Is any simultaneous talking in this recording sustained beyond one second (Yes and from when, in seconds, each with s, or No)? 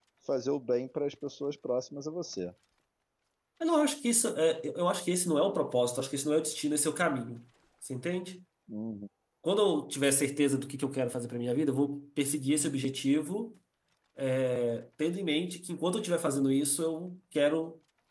No